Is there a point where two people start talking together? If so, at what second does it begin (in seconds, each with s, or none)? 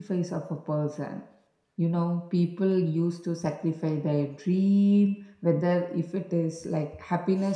none